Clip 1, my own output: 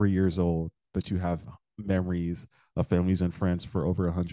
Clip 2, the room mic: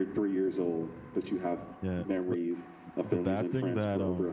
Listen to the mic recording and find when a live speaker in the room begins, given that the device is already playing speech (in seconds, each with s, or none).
1.8 s